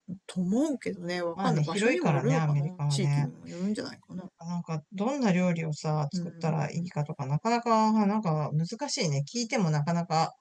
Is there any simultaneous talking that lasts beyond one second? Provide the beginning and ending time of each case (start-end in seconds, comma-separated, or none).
1.4-3.3